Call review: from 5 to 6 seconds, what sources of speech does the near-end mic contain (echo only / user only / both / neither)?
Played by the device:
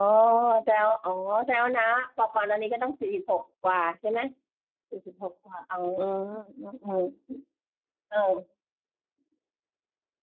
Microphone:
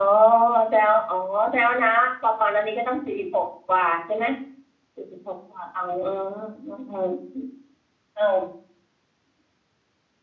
echo only